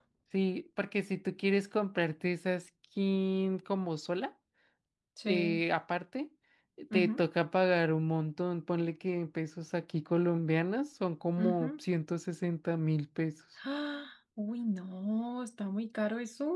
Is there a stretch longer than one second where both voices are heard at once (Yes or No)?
No